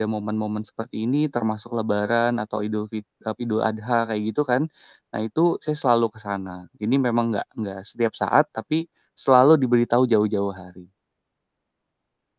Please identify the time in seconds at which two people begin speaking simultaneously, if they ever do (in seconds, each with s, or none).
none